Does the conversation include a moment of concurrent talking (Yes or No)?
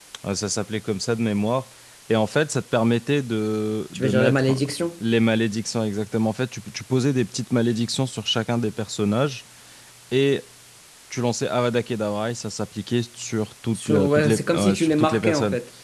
Yes